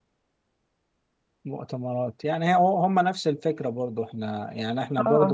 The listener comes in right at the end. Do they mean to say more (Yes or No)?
No